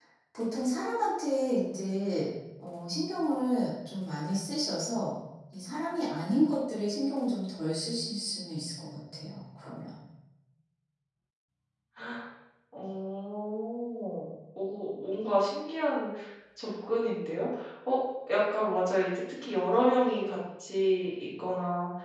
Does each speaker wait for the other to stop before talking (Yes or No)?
Yes